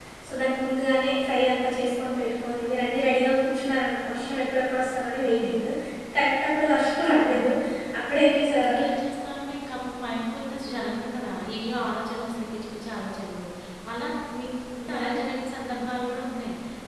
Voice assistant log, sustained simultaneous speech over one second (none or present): none